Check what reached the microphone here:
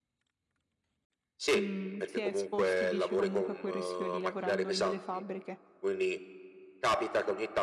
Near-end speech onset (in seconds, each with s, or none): 1.6 s